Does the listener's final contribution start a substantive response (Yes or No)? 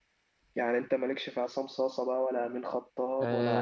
Yes